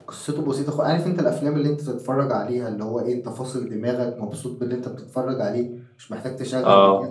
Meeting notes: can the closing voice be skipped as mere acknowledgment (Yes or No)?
Yes